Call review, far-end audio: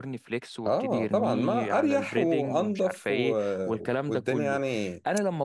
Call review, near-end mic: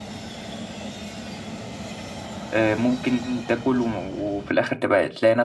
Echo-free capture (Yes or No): Yes